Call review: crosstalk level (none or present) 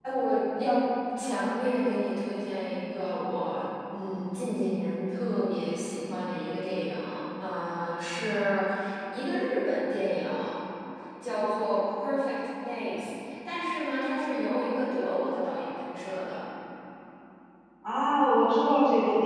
none